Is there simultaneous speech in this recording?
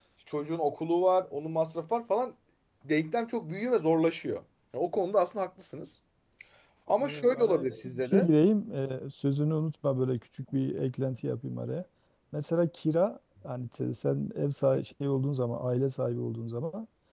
Yes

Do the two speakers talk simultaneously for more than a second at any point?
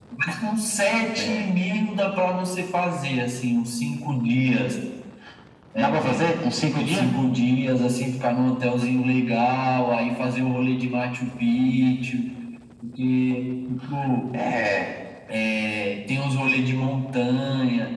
No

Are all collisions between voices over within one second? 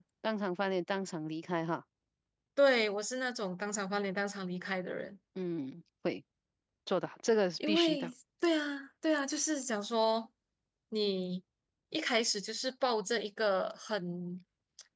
Yes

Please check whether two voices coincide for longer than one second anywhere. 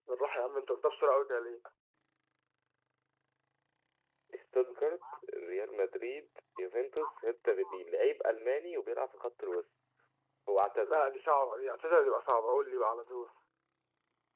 No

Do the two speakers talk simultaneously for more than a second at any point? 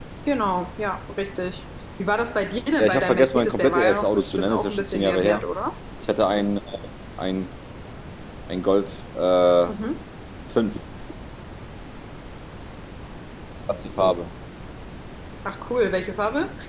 Yes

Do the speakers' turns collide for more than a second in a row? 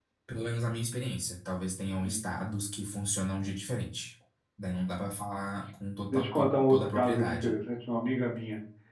Yes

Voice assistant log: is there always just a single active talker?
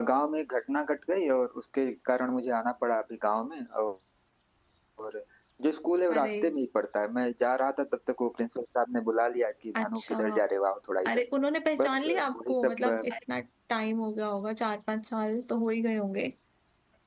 No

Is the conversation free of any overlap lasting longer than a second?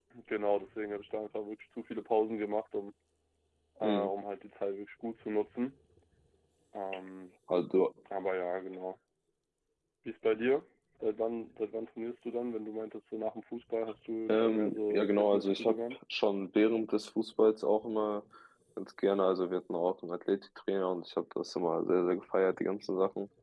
No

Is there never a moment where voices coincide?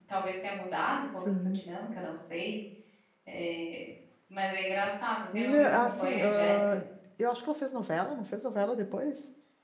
No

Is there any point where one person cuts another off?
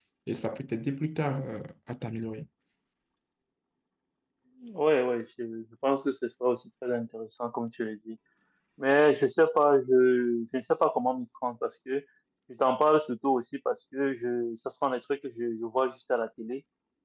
No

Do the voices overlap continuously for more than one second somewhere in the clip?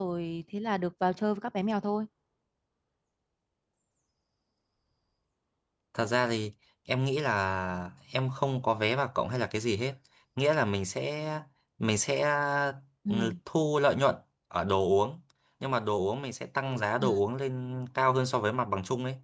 No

